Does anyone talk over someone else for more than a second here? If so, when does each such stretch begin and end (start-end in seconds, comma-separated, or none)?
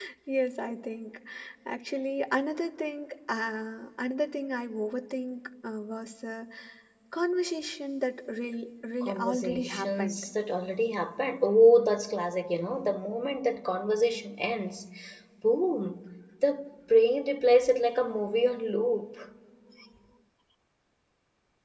9.0-10.2